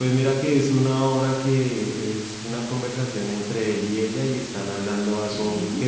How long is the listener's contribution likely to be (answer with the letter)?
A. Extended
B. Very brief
B